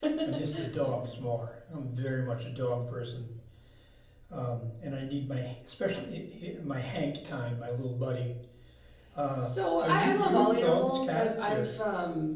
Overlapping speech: Yes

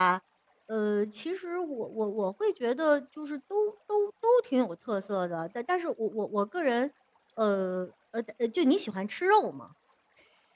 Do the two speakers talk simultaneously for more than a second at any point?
No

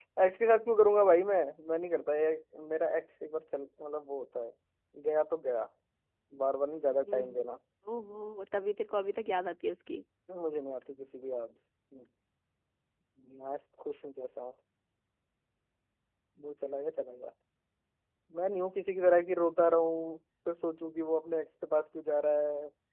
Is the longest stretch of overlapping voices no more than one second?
Yes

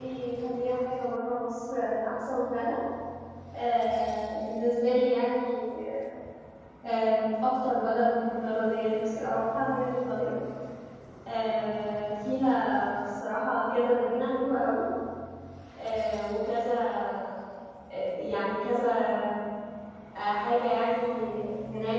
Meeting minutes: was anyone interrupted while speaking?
No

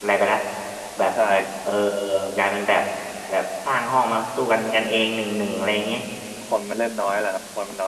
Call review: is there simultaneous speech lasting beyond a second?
No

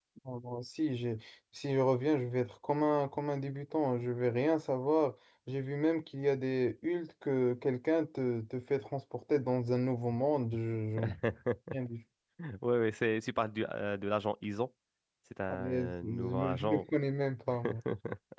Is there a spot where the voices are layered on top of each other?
Yes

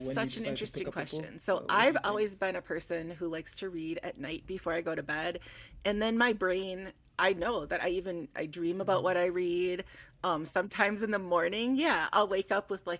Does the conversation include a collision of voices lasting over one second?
Yes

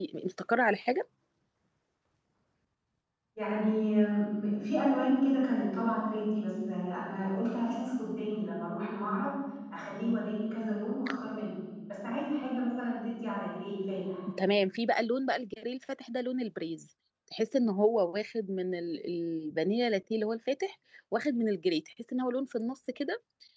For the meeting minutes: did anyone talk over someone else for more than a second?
No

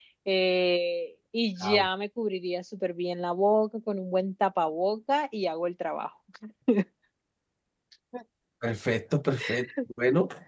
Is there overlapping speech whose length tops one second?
No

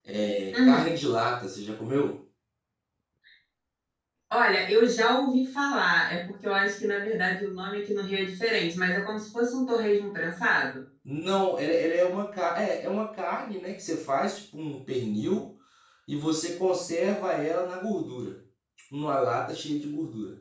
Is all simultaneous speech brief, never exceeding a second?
Yes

